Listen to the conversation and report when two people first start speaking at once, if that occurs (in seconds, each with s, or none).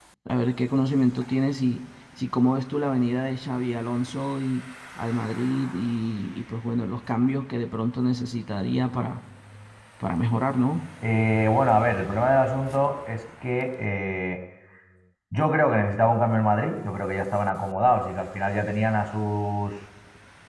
none